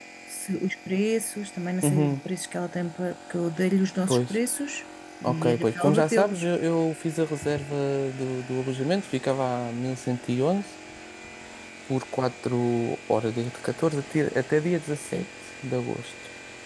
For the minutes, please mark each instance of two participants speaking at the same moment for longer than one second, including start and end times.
5.2-6.5

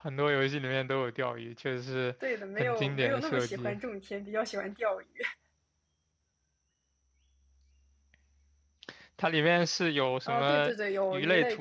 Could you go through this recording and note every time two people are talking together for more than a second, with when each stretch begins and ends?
2.2-3.7

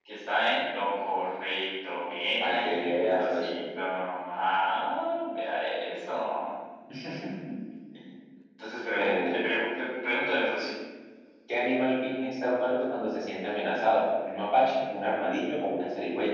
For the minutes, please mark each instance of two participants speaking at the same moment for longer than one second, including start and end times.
2.4-3.6

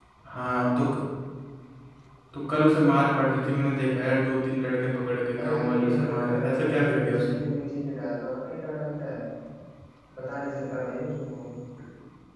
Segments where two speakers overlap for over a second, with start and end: 5.4-7.4

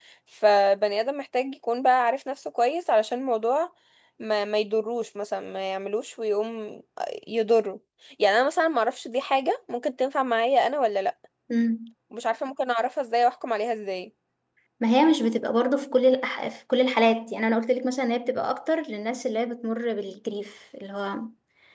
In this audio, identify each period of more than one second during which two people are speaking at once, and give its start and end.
none

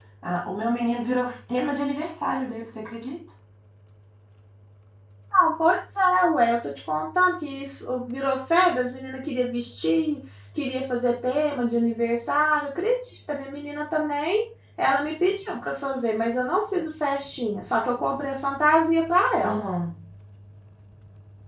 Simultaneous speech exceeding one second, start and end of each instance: none

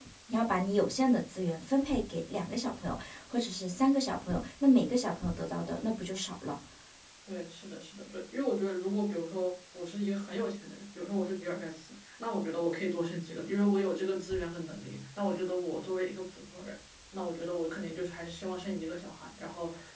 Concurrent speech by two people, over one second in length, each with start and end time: none

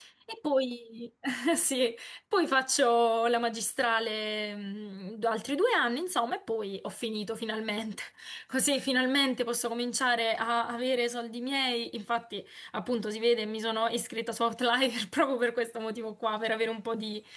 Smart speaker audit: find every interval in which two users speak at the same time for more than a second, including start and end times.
none

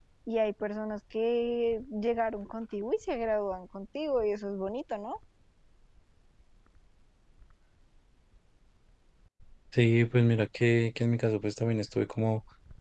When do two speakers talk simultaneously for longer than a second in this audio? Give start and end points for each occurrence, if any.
none

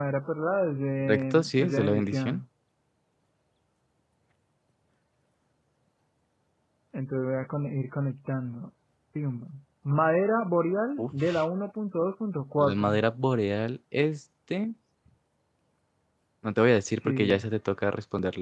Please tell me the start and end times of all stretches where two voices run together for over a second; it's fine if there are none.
1.0-2.4

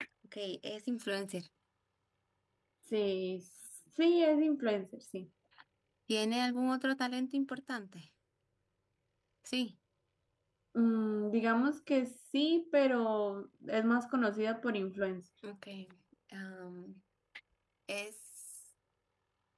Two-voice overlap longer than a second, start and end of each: none

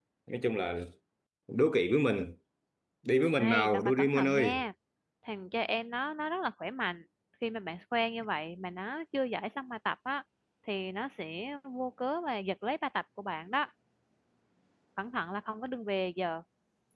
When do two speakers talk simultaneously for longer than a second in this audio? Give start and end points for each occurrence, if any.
3.4-4.6

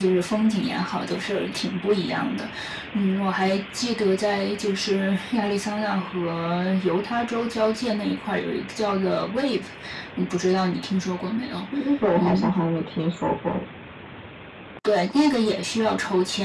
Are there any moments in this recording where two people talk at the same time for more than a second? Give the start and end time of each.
none

